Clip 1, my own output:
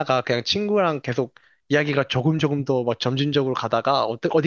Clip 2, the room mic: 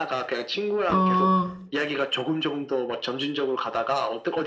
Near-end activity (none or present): present